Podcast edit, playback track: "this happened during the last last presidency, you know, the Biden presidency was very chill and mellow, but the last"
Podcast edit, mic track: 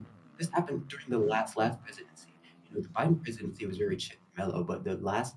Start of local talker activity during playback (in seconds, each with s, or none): none